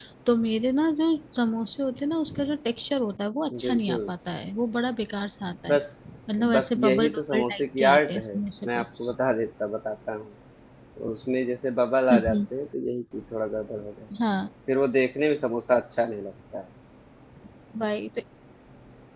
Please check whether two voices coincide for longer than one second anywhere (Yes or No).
Yes